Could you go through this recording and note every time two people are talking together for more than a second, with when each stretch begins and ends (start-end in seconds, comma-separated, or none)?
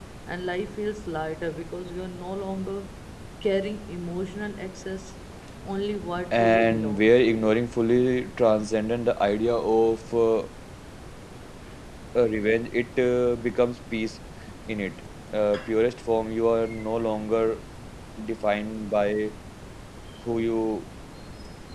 6.3-7.5